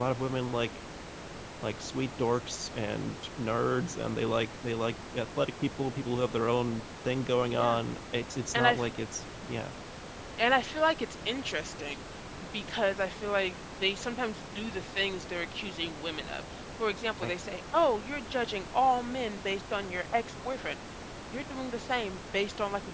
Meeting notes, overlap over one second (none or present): none